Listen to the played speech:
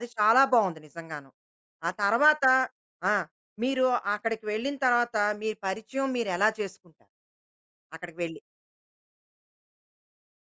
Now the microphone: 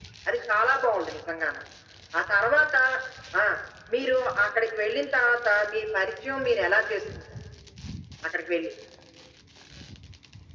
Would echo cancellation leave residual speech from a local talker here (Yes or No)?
No